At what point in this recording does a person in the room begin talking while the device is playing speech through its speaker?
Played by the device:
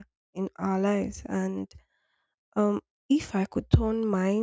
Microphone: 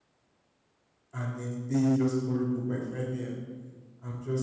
1.1 s

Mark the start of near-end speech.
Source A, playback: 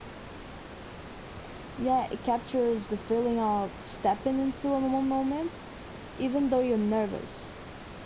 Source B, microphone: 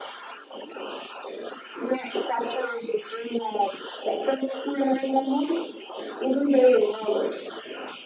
none

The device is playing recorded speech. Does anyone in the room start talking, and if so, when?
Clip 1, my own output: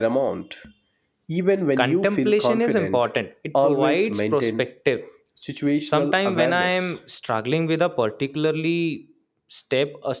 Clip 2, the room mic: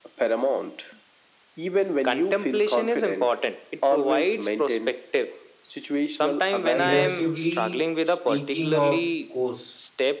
6.7 s

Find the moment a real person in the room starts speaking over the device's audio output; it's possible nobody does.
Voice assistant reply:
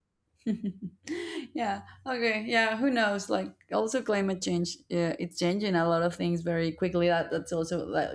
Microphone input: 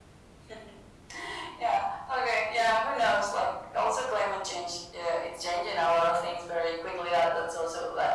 none

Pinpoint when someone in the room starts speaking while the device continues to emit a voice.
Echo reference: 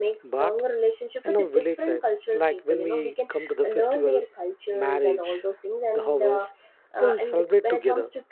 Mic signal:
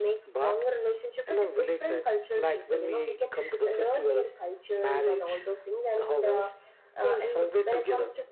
none

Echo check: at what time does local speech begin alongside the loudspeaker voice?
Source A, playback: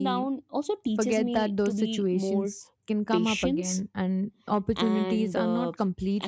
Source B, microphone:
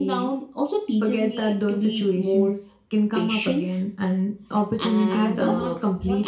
5.1 s

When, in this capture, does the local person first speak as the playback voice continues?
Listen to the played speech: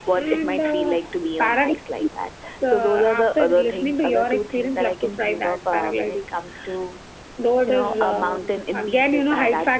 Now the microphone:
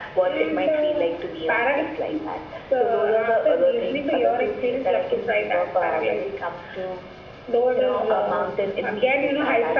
none

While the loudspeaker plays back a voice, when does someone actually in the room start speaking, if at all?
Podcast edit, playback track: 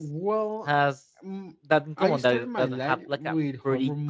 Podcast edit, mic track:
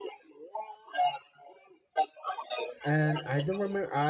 2.8 s

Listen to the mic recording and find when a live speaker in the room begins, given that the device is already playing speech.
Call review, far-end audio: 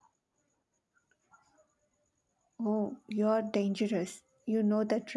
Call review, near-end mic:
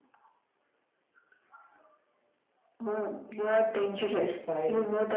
4.1 s

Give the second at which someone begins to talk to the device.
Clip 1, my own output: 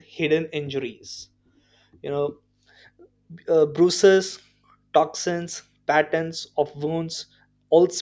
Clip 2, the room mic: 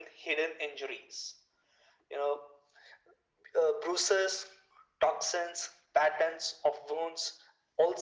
none

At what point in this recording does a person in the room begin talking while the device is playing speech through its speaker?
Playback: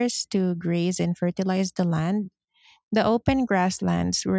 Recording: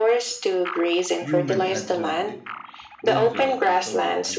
1.2 s

